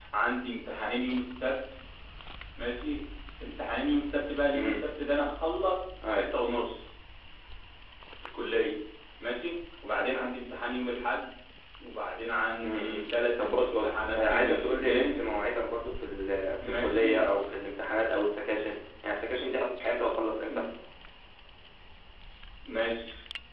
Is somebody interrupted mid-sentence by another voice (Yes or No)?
Yes